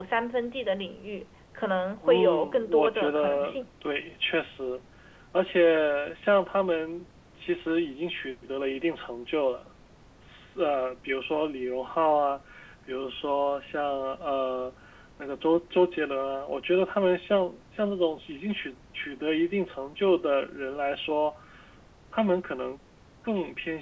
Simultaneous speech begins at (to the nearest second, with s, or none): 2 s